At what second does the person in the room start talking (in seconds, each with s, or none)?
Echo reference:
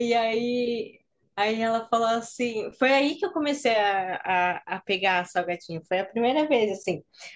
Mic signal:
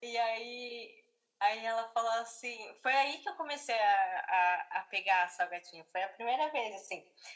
none